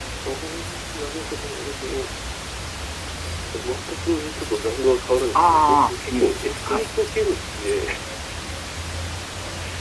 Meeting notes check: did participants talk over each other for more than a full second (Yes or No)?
Yes